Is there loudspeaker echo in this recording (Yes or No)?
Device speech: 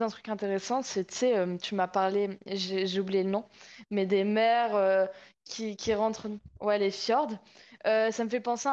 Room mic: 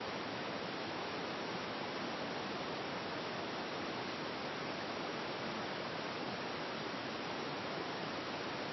No